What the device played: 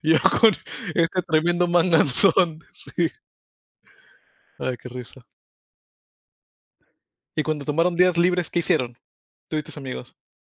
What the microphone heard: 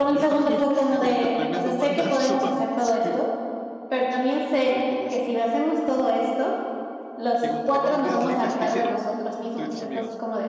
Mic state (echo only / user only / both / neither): both